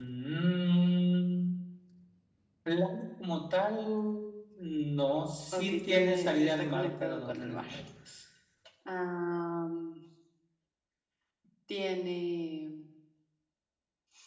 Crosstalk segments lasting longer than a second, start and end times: 5.5-7.6

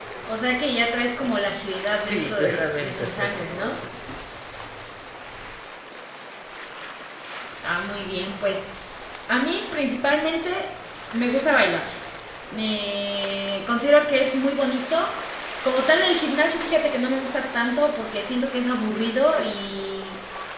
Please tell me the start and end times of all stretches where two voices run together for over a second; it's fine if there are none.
2.0-3.7

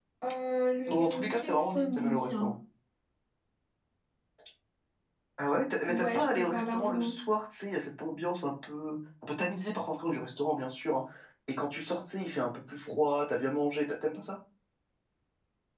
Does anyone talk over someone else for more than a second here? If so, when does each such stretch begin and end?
0.8-2.5, 5.9-7.2

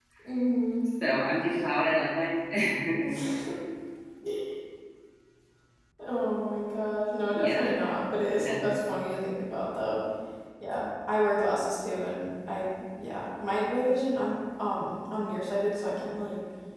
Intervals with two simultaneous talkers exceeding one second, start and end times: none

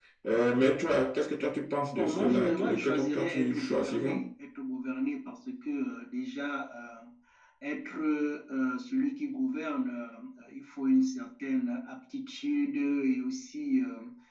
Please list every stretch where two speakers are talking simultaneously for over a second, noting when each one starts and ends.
1.9-4.2

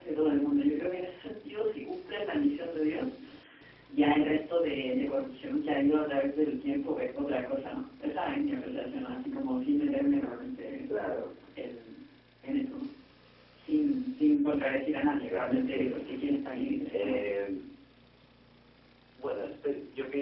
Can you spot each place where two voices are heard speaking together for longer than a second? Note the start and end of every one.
15.3-17.2

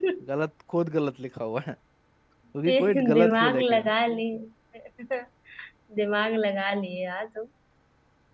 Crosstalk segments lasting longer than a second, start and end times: 2.7-3.9

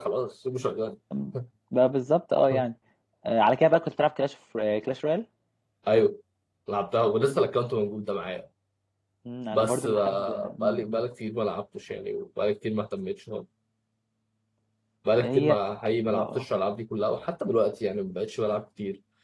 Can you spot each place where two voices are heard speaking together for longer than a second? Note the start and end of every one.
9.5-11.0

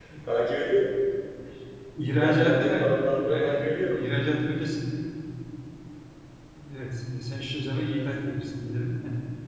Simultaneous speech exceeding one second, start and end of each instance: 2.2-4.0

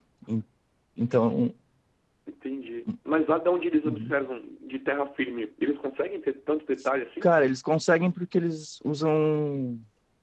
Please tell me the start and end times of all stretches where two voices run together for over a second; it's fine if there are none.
none

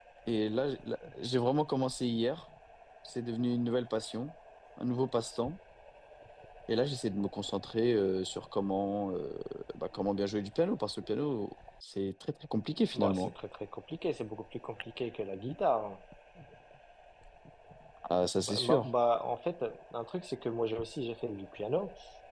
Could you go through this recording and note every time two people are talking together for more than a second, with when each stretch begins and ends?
none

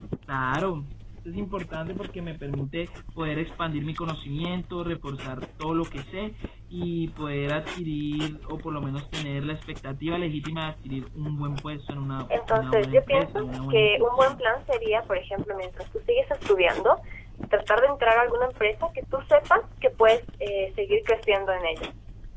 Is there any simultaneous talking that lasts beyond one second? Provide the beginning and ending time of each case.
12.5-14.4

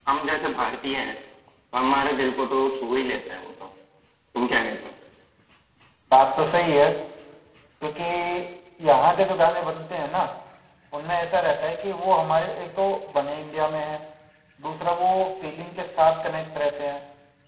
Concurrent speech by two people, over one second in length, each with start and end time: none

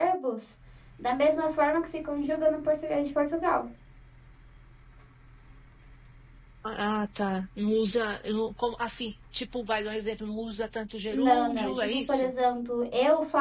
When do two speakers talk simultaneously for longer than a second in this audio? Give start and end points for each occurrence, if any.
11.1-12.3

